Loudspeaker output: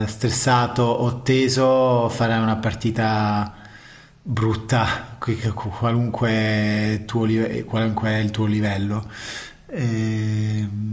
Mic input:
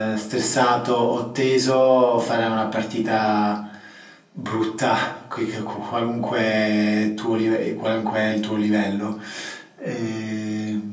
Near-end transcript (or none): none